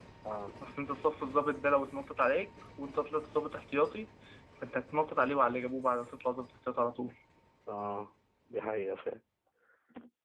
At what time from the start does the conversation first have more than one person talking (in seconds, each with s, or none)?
none